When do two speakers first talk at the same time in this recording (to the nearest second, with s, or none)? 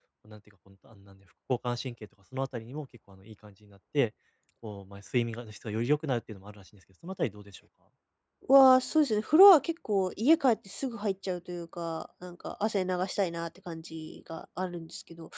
none